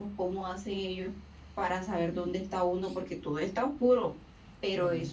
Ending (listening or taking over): listening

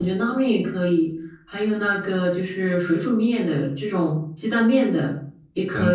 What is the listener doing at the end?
taking over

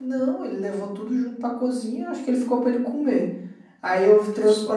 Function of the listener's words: listening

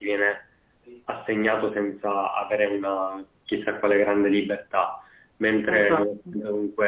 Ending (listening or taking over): listening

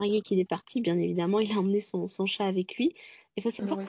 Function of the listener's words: listening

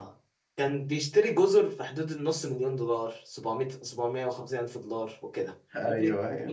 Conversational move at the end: listening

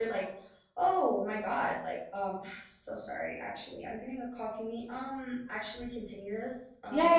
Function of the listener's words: taking over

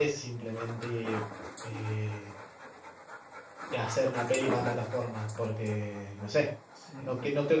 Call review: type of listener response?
taking over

